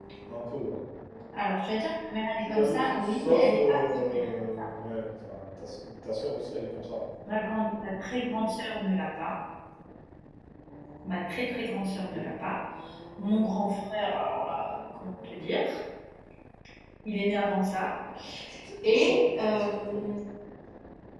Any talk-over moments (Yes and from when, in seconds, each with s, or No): Yes, from 2.4 s